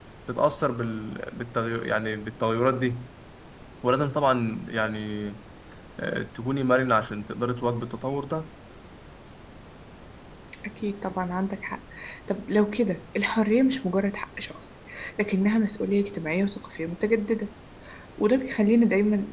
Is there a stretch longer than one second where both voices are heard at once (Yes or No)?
No